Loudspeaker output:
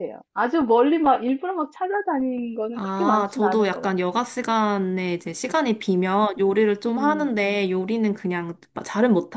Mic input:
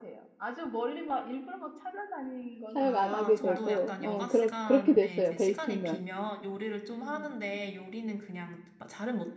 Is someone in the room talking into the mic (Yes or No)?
Yes